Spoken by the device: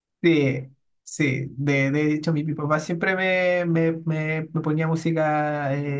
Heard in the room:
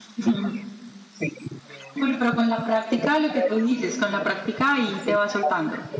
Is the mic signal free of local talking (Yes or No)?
No